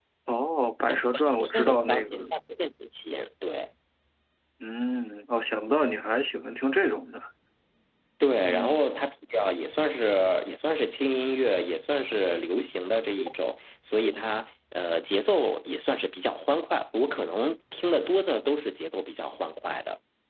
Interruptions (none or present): present